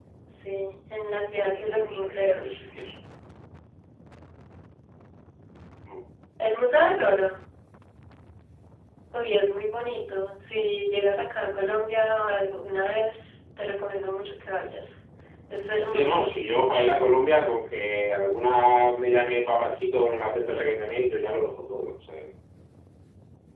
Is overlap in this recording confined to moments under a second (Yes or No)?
No